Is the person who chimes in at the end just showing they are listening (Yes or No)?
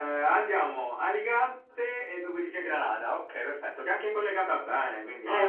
No